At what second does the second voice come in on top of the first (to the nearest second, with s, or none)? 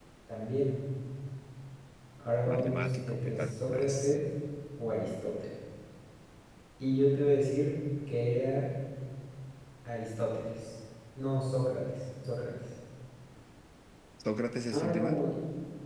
3 s